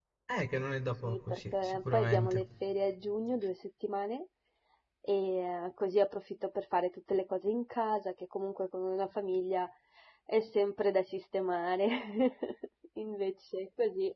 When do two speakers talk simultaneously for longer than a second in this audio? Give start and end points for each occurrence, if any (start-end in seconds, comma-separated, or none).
1.0-2.4